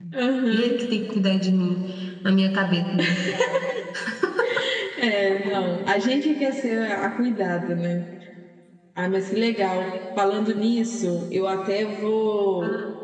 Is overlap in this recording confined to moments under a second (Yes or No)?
Yes